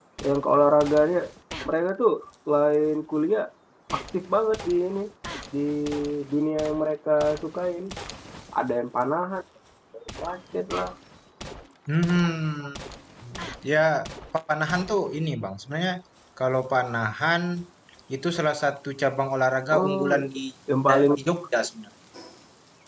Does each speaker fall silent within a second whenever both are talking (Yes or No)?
Yes